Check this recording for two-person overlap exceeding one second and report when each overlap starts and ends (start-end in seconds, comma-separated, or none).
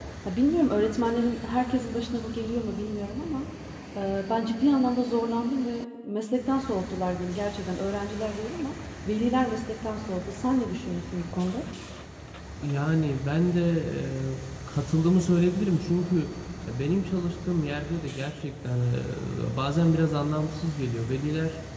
none